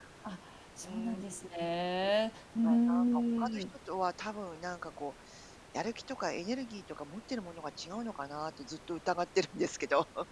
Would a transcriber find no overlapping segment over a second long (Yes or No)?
Yes